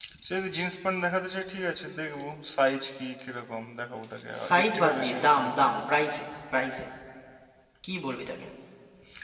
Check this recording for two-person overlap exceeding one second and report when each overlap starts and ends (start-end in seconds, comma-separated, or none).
4.5-5.8